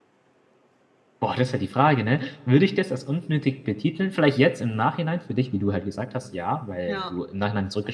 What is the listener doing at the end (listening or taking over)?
listening